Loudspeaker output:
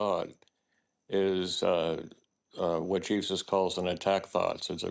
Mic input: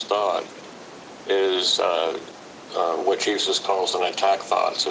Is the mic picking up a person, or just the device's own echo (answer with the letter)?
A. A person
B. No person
B